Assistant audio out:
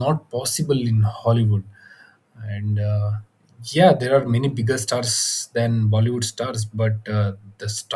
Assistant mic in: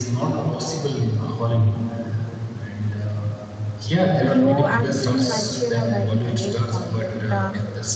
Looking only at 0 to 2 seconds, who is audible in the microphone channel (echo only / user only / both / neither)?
echo only